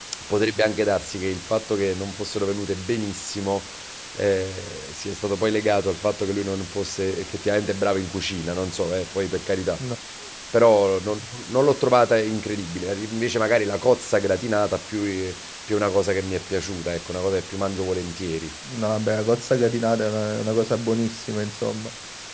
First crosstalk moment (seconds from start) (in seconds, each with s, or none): none